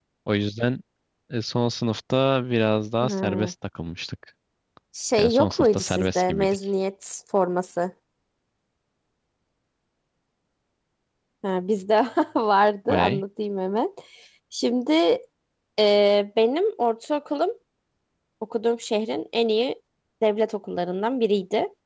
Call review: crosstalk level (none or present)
present